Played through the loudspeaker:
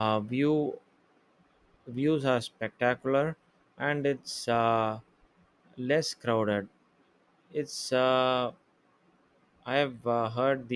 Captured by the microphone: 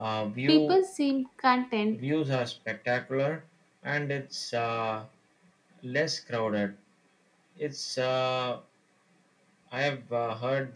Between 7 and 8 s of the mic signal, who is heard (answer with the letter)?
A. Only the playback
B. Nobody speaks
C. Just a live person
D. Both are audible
A